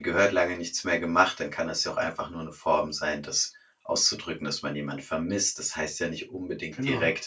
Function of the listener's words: listening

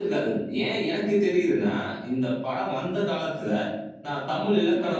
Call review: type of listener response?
listening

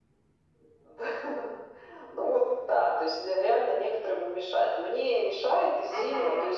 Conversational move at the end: listening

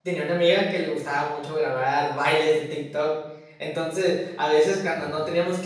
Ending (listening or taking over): listening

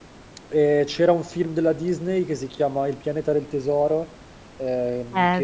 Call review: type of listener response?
listening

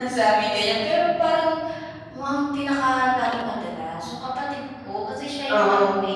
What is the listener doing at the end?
listening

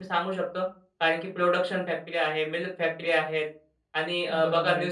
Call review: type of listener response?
taking over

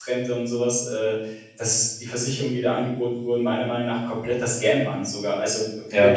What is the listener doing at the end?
listening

